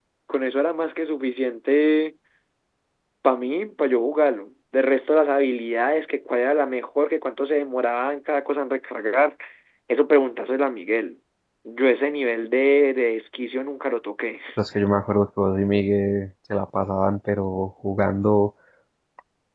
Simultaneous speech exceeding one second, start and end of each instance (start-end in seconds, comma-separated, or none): none